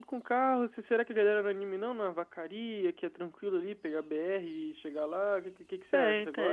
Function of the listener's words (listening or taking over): taking over